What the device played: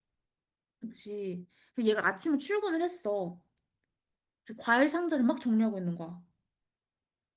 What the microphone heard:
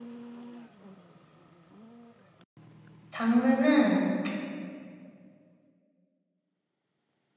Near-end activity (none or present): present